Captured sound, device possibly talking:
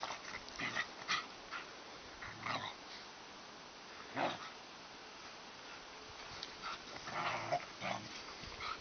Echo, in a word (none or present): none